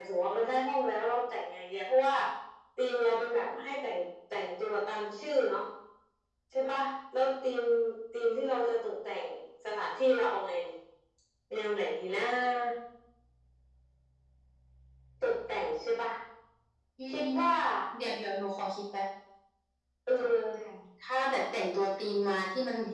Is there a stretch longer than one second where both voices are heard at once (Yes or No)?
No